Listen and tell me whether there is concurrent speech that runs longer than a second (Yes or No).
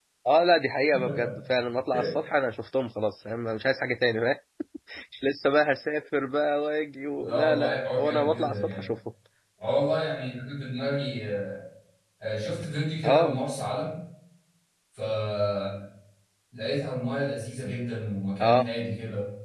Yes